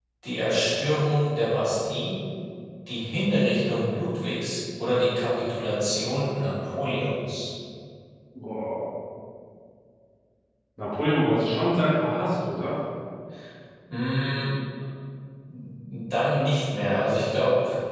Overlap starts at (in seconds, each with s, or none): none